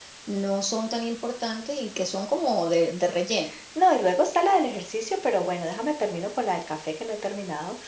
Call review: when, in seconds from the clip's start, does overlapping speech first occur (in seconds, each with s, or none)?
none